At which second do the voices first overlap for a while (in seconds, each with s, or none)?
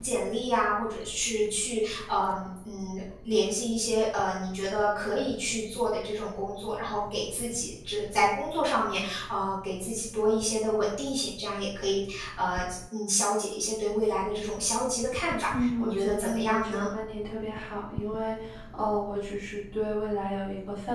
15.5 s